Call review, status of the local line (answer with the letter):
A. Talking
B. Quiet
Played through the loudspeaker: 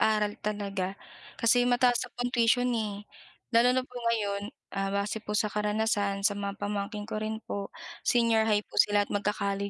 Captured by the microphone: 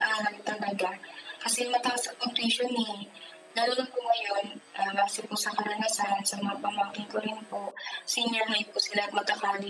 A